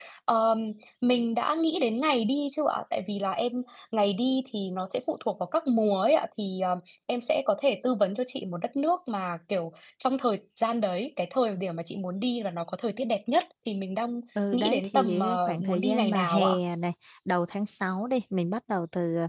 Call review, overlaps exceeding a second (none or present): present